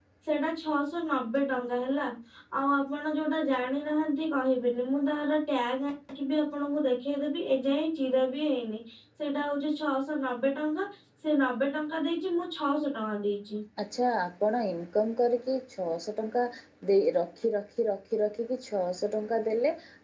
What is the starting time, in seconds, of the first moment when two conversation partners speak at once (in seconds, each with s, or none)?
none